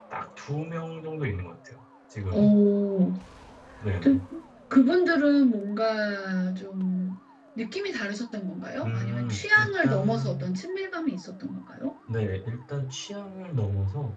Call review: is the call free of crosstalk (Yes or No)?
No